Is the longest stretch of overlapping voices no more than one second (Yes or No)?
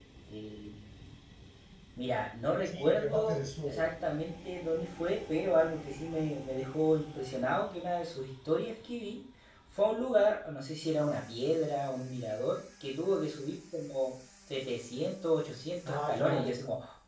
No